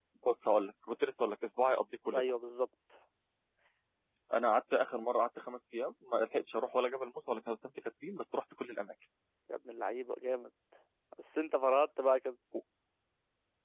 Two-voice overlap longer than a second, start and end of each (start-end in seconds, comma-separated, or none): none